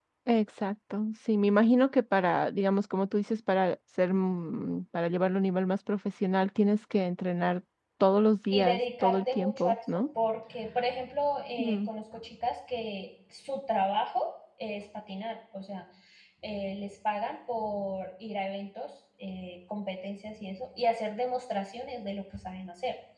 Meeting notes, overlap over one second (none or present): present